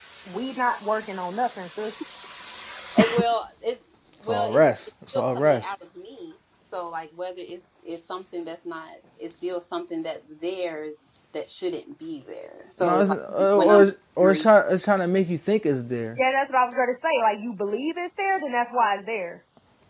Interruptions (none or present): present